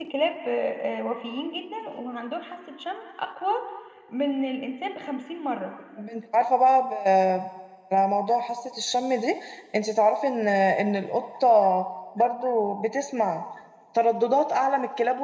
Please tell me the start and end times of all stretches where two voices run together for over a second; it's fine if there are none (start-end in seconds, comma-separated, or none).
none